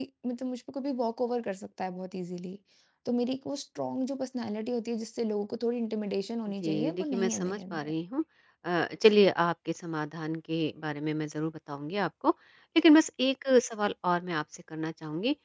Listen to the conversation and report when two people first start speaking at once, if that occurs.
6.6 s

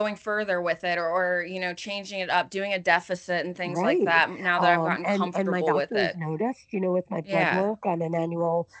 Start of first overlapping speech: 3.7 s

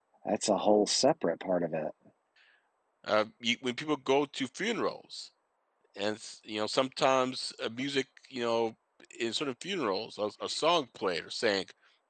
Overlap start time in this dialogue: none

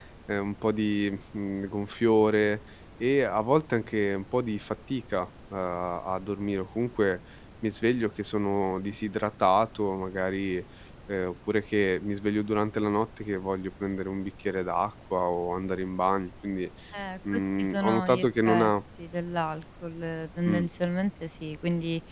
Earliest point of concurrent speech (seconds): 17.3 s

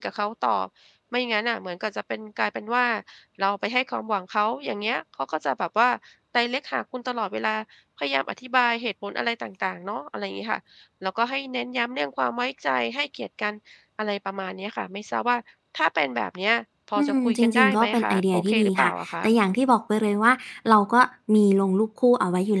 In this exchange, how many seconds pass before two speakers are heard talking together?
17.0 s

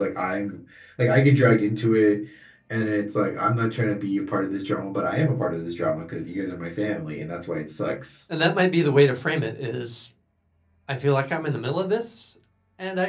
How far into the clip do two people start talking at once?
none

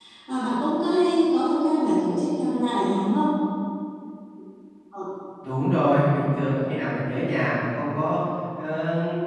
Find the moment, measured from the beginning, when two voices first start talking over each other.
none

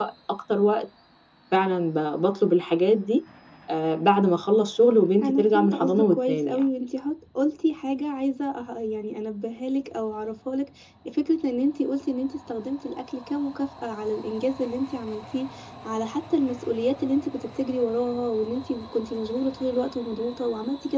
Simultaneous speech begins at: 5.2 s

